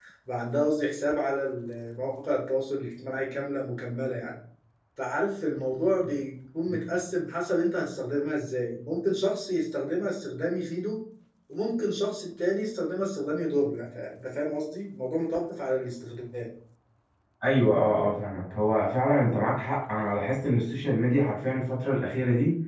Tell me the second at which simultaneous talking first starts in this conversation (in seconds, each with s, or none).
none